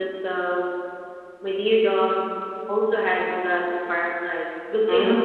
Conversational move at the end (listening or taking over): listening